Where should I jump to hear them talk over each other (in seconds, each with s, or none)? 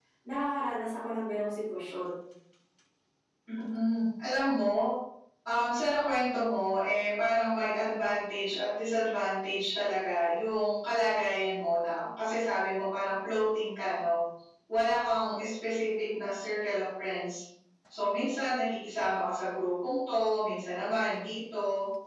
none